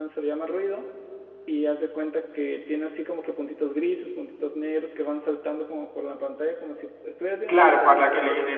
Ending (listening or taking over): taking over